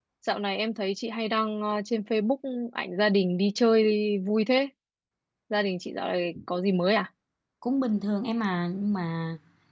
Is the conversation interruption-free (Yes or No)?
Yes